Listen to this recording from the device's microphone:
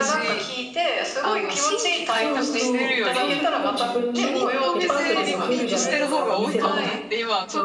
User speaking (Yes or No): Yes